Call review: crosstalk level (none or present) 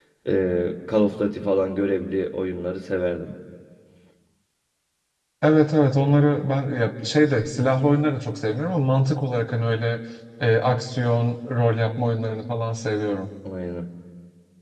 none